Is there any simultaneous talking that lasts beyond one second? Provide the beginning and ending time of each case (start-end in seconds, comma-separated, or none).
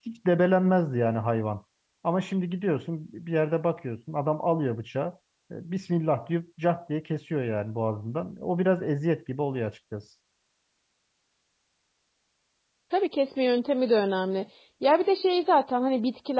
none